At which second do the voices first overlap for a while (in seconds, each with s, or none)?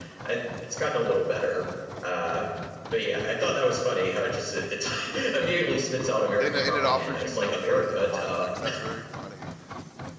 6.4 s